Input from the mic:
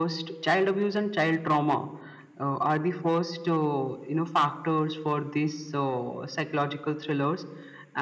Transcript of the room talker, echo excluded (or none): none